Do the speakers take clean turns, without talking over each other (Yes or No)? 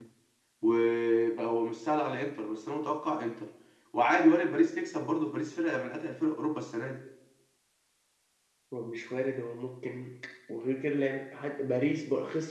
Yes